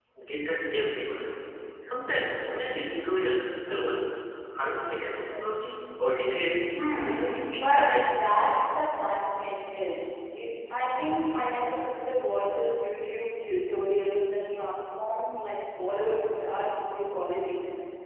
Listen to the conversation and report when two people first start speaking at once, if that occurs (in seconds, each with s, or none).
7.0 s